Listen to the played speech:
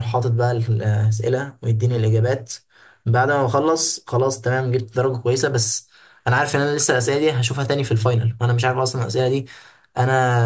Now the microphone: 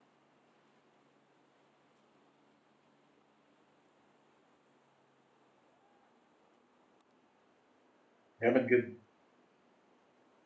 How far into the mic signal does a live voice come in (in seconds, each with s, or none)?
8.4 s